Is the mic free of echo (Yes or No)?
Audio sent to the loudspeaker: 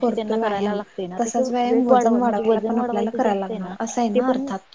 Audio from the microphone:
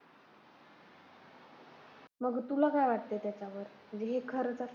Yes